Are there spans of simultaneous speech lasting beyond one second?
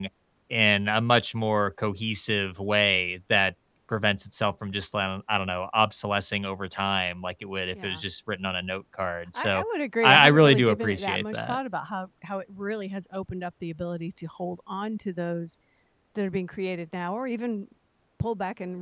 Yes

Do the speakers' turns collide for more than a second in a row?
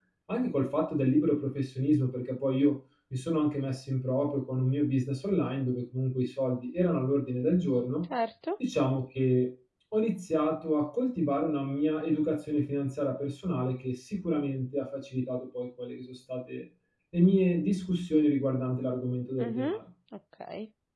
No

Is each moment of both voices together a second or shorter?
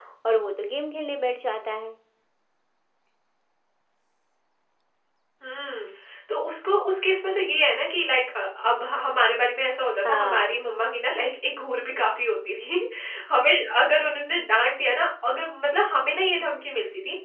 Yes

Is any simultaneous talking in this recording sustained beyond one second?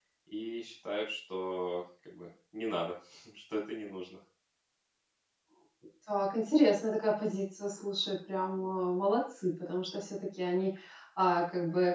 No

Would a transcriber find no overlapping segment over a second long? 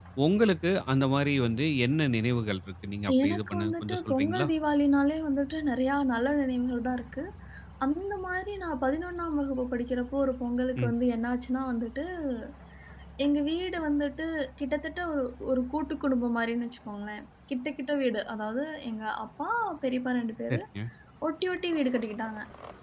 No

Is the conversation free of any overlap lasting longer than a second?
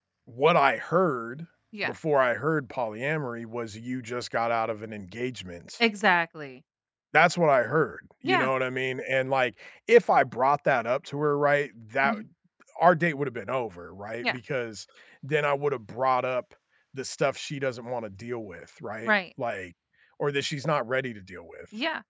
Yes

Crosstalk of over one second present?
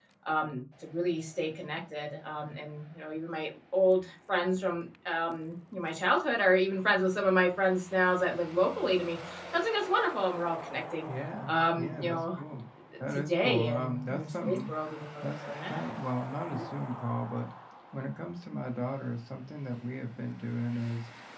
Yes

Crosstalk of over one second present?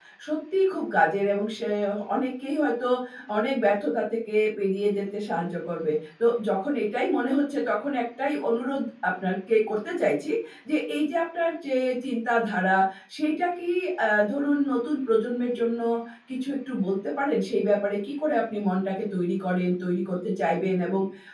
No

